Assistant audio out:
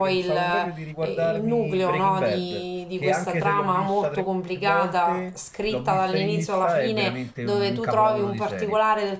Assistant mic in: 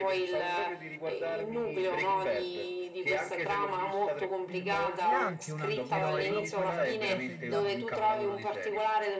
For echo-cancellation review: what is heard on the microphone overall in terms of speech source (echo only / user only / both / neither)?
both